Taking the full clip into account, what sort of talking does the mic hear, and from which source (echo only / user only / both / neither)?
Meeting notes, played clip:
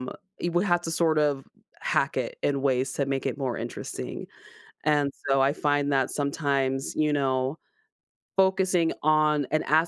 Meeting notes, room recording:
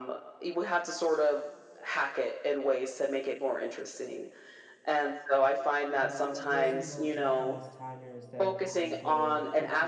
both